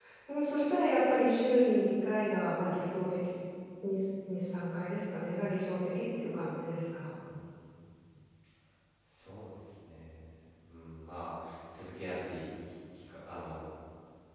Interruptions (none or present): none